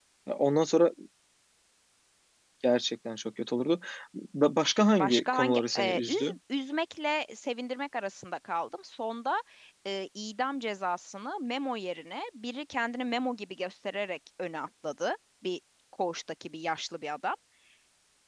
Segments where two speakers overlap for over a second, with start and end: 5.0-6.4

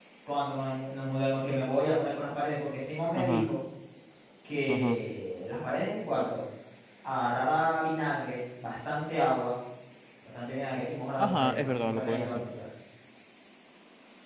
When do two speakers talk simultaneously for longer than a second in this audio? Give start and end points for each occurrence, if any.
11.2-12.4

